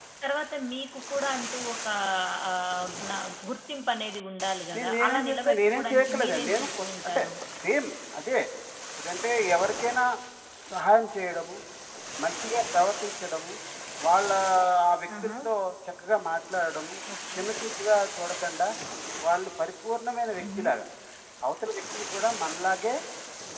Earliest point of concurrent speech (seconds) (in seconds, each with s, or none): 4.8 s